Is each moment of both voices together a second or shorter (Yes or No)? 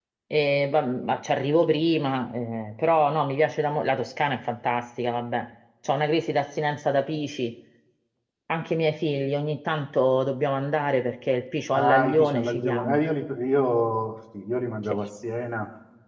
No